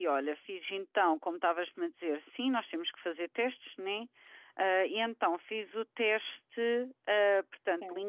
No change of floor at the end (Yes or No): Yes